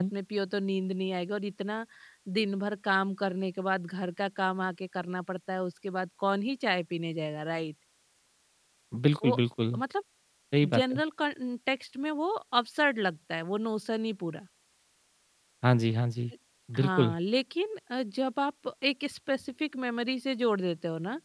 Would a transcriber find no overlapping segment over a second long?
Yes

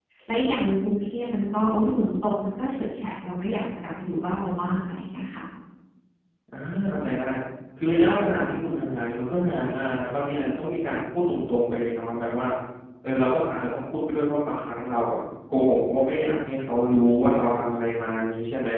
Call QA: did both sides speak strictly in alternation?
Yes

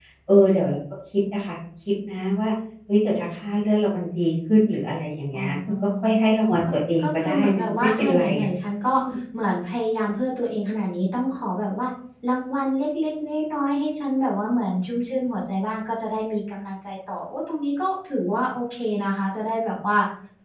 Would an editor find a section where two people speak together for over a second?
Yes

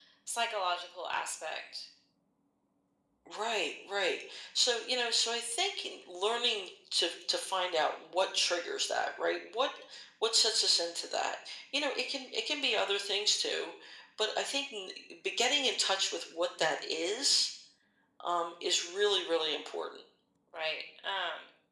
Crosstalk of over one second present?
No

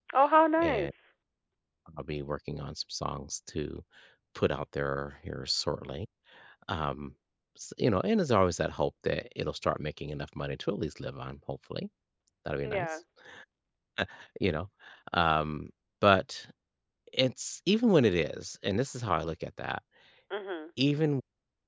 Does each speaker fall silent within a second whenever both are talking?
Yes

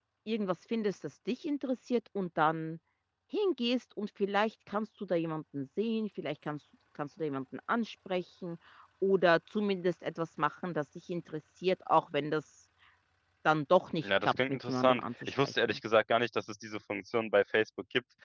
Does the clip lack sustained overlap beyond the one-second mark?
No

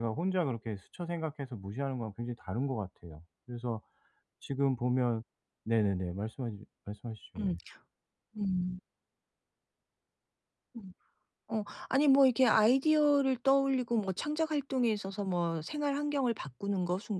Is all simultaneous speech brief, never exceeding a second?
Yes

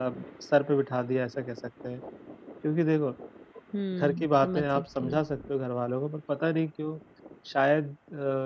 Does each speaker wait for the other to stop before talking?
No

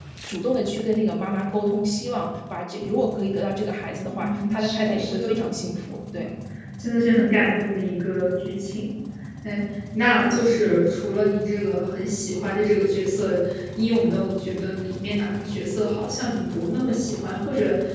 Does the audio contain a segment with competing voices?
Yes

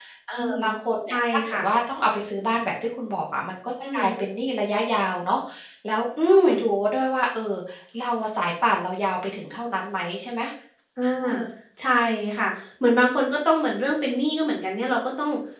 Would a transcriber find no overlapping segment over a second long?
Yes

